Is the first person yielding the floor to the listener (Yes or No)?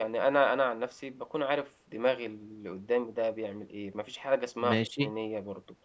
No